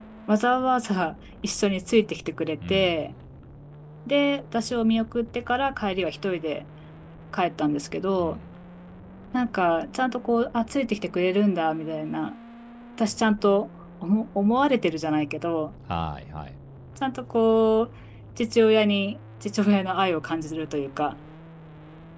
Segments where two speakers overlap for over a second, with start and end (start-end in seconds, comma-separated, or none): none